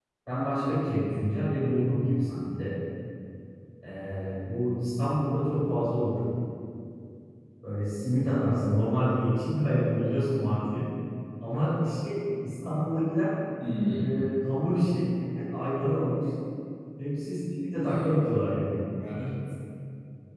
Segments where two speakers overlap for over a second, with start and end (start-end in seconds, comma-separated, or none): none